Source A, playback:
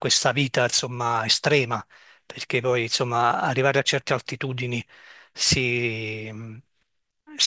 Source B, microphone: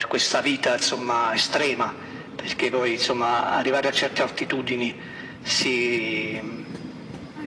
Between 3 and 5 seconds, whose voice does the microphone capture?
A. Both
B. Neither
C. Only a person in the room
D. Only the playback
D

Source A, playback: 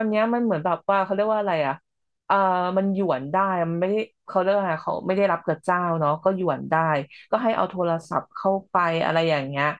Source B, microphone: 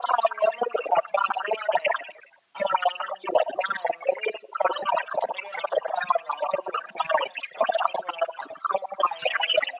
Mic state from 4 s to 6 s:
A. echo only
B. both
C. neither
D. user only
A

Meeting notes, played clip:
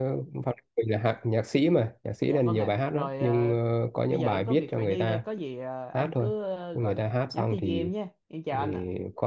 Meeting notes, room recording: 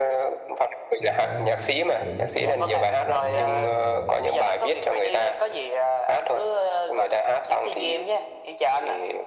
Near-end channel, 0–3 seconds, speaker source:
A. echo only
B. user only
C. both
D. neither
C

